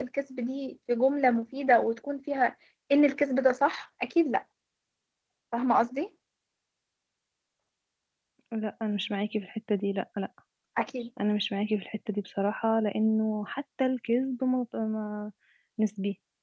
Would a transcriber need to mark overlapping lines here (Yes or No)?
No